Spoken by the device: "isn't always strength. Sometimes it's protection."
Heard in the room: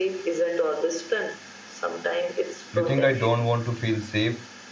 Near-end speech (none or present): present